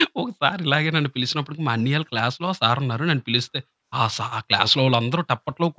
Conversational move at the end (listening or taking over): listening